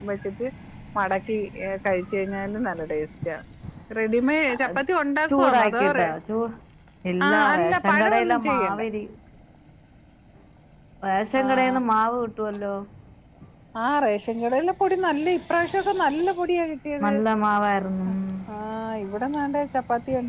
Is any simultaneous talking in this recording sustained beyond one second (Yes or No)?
Yes